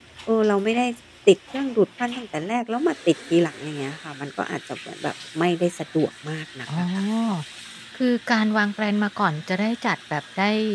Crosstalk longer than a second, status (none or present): none